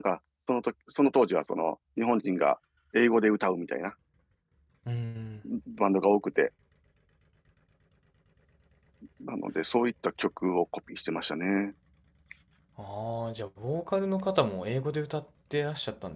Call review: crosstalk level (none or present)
none